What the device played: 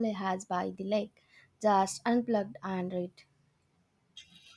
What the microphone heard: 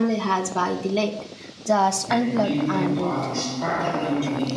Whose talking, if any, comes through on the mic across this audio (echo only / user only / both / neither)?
both